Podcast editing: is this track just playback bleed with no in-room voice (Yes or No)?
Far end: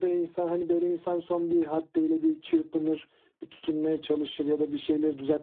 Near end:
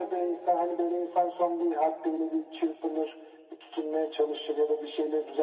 Yes